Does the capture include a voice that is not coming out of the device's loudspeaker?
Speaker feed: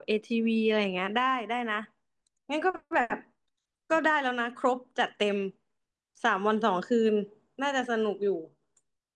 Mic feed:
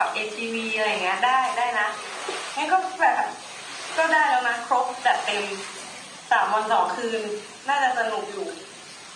No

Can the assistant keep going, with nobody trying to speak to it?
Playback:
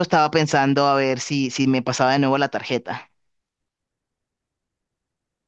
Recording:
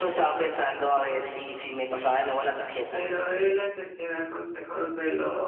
No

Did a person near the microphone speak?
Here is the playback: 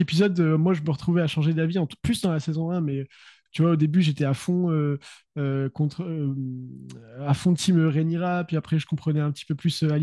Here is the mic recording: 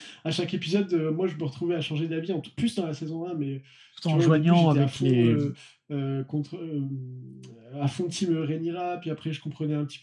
Yes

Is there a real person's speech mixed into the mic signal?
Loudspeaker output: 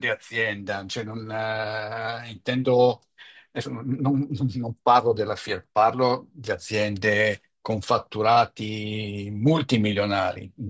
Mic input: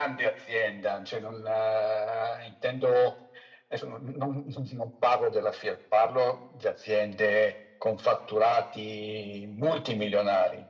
No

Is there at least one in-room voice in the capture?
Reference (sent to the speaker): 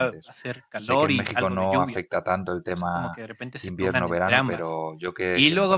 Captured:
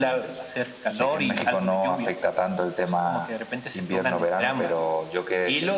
No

